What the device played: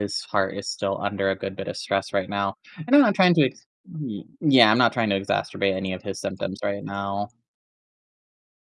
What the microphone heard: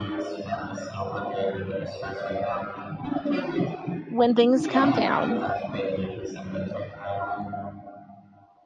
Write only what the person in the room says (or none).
when things calm down